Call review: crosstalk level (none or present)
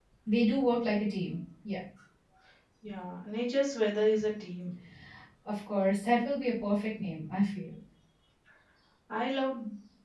none